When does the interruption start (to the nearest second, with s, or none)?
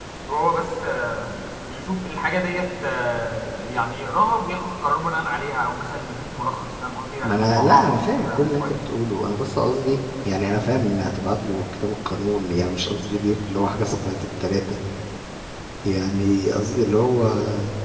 7 s